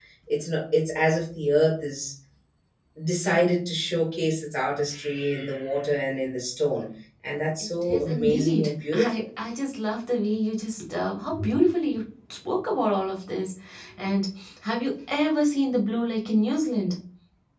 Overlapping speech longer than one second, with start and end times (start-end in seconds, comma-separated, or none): 7.8-9.2